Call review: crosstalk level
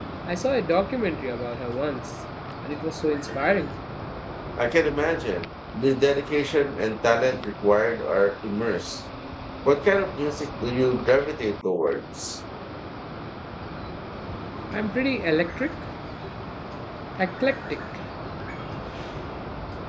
none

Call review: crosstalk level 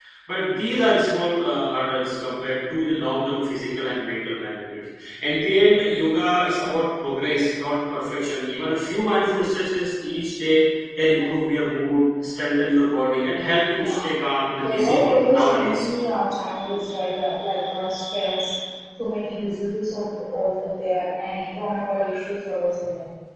present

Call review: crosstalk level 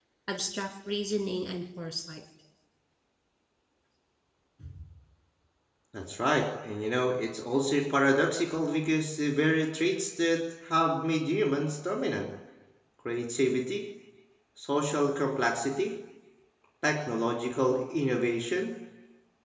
none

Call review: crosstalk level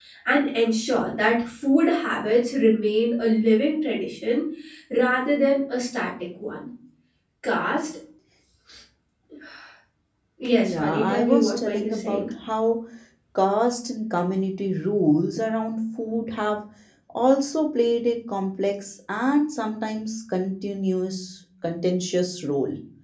present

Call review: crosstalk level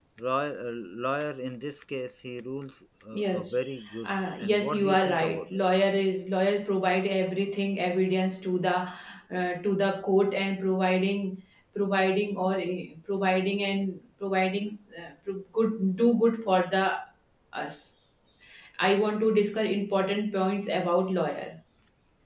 present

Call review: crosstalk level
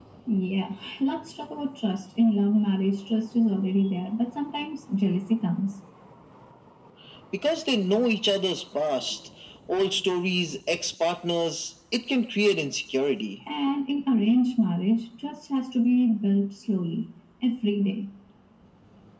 none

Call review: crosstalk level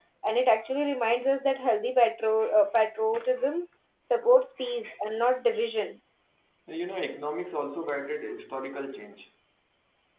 none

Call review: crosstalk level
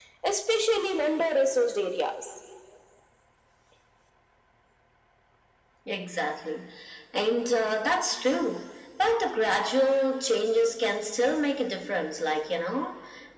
none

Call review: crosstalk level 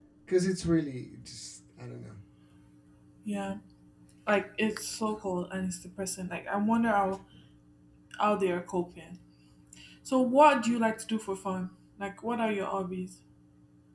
none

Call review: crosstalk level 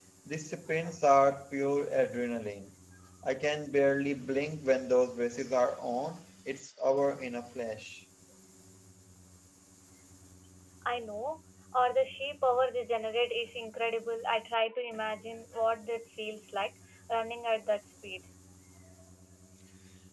none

